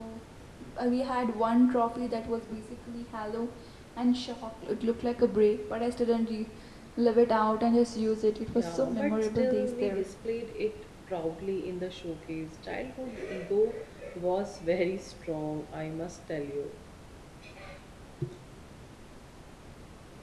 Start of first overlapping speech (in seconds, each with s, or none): 8.6 s